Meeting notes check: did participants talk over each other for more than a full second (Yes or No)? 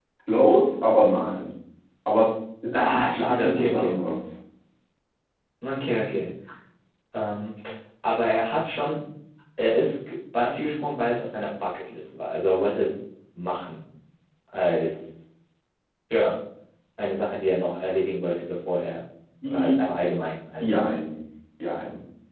Yes